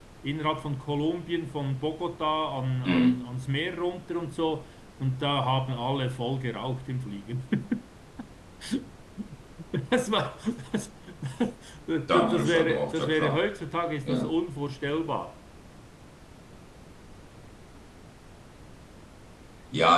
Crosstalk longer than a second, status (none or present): present